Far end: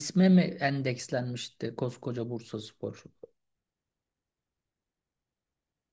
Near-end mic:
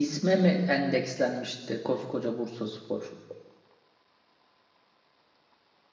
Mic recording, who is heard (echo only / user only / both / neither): echo only